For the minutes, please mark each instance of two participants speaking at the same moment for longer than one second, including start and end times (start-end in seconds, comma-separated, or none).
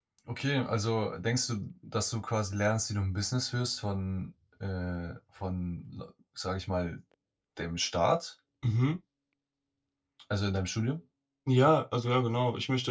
none